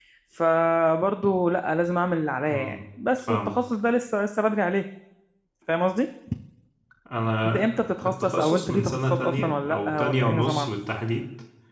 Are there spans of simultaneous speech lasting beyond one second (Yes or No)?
Yes